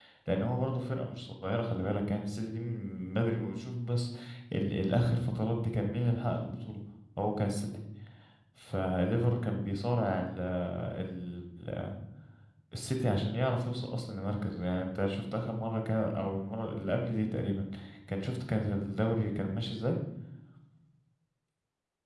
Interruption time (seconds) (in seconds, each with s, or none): none